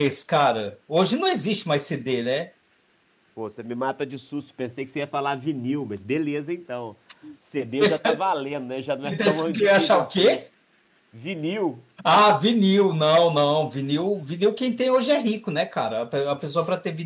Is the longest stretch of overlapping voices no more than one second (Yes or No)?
No